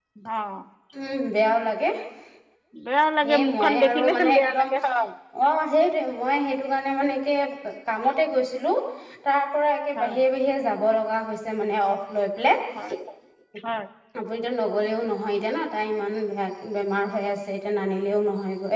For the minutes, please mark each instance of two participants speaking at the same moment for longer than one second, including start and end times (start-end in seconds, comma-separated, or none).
3.4-4.6